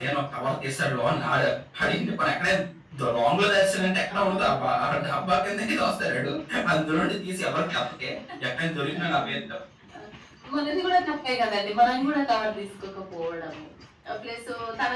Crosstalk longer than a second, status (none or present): none